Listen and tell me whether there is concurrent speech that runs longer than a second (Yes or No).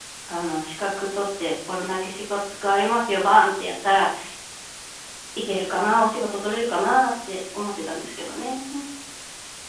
No